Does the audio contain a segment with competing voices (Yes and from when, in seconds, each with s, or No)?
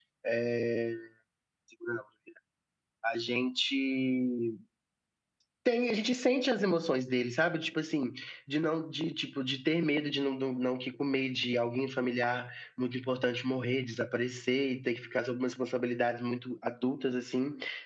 No